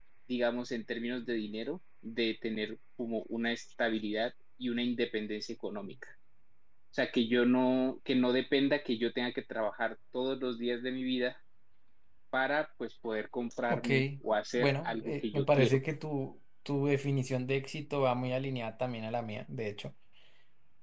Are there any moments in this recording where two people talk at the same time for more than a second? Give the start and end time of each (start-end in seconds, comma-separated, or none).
14.6-15.8